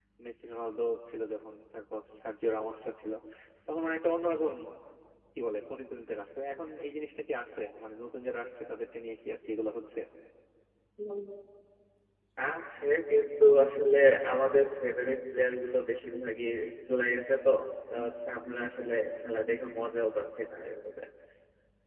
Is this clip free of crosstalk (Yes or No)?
Yes